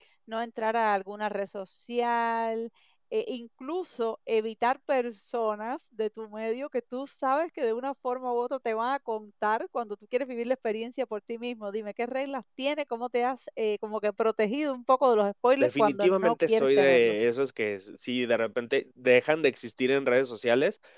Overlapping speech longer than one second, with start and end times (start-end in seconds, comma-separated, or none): 15.6-17.1